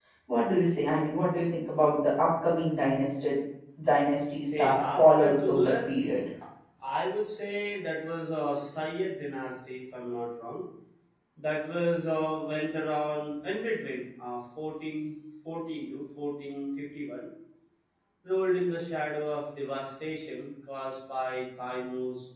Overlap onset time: 4.6 s

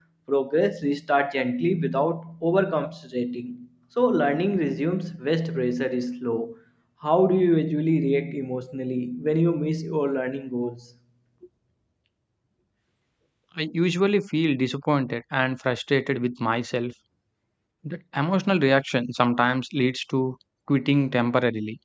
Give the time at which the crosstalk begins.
none

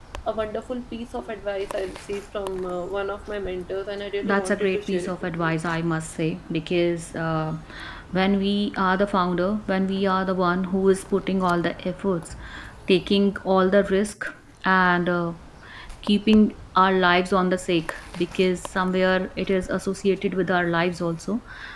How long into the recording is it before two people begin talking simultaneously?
4.2 s

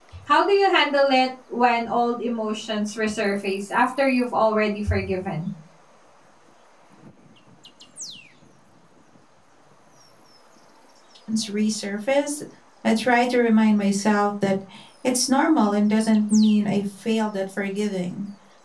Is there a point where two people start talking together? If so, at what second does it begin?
none

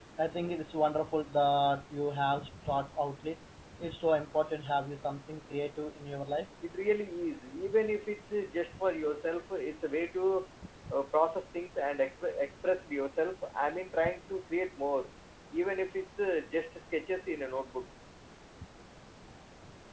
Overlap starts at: none

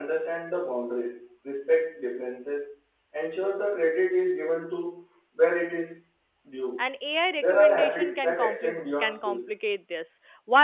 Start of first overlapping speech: 7.4 s

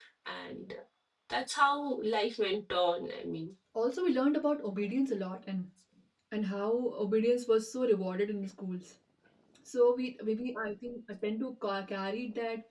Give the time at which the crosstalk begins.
none

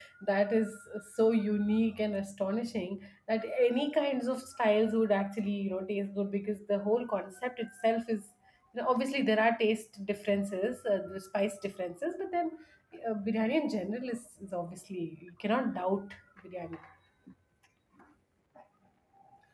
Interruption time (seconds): none

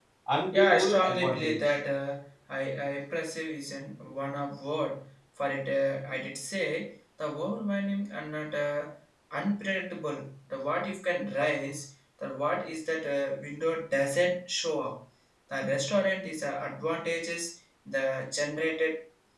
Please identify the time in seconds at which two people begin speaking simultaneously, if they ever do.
0.5 s

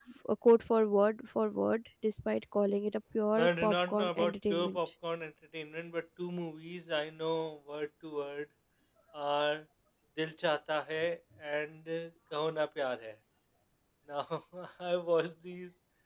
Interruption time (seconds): 3.4 s

